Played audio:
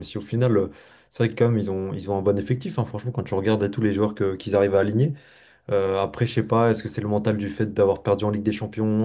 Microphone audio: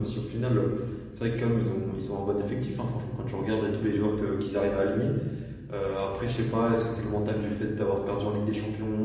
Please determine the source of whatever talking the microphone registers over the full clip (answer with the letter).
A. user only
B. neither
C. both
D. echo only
D